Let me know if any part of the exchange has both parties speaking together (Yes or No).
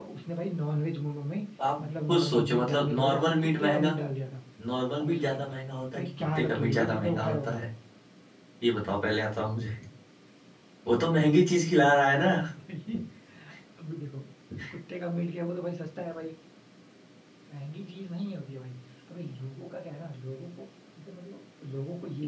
Yes